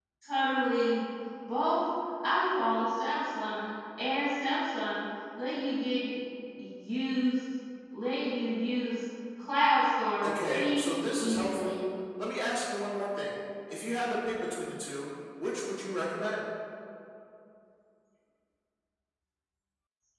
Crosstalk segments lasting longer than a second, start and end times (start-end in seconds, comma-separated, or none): 10.2-11.8